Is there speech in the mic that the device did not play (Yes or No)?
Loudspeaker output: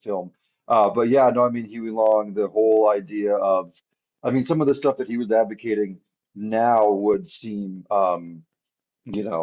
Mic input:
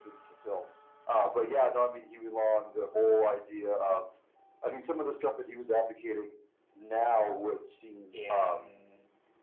Yes